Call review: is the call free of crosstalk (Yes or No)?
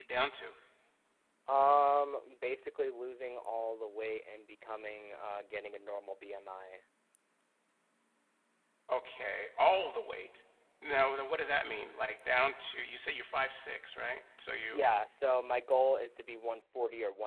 Yes